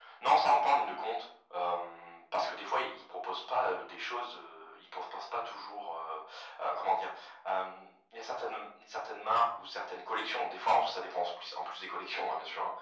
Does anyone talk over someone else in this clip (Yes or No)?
No